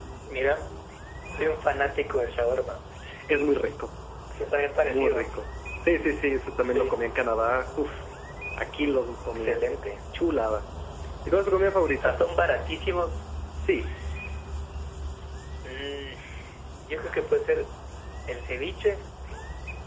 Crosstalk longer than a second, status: none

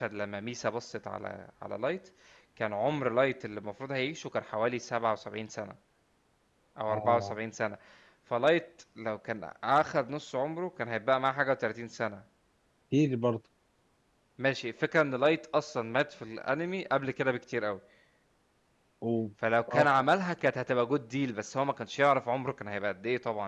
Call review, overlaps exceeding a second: none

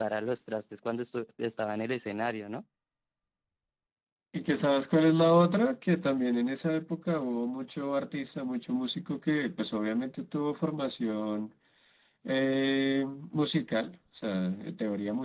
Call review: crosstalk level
none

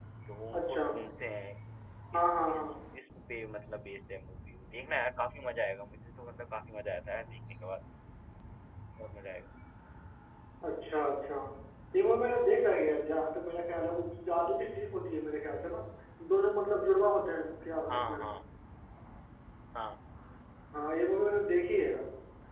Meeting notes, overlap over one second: none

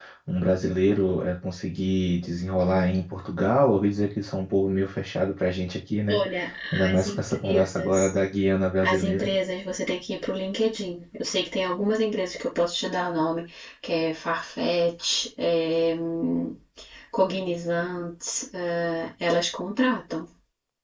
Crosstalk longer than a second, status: present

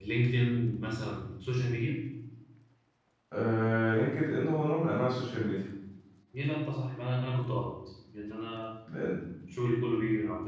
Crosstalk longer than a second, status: none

